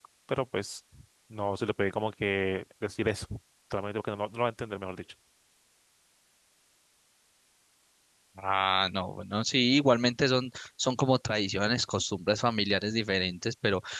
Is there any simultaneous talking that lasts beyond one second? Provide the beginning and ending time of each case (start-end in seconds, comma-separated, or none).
none